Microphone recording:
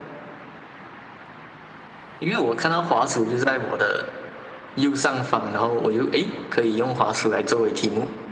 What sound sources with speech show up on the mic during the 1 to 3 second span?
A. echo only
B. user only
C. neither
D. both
A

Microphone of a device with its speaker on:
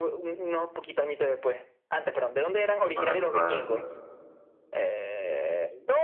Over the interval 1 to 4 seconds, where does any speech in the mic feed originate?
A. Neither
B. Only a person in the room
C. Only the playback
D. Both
D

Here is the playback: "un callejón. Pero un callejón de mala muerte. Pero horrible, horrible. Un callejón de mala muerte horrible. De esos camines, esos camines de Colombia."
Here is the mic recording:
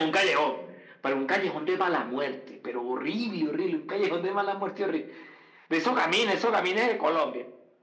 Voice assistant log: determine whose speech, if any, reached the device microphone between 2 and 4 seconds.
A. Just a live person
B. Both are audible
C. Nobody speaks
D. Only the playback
D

